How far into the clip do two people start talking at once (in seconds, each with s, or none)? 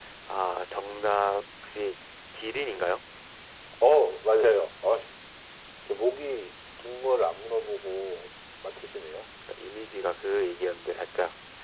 none